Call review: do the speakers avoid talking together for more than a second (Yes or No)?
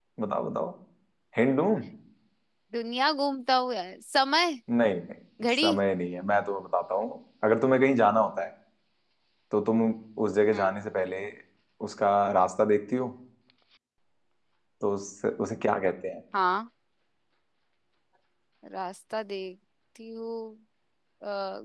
Yes